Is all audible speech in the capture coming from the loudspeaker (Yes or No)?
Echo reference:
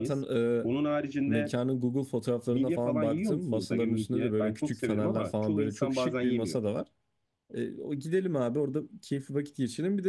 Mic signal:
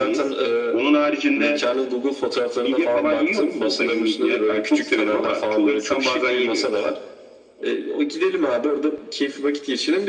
Yes